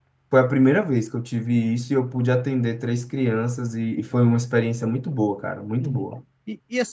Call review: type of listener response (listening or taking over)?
taking over